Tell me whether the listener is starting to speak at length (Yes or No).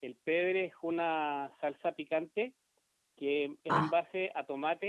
No